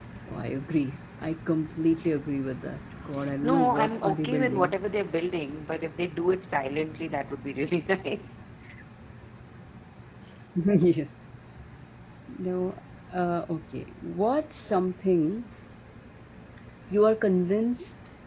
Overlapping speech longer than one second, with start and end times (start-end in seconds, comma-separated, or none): 3.4-4.8